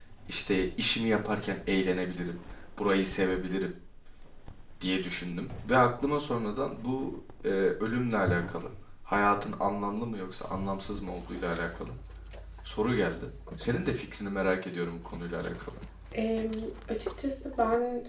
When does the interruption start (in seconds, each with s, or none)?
none